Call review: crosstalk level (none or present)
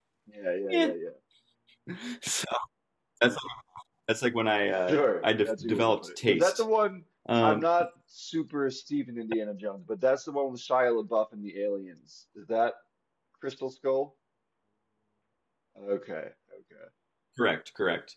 present